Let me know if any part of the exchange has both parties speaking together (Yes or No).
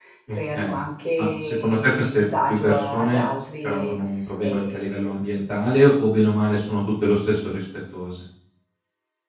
Yes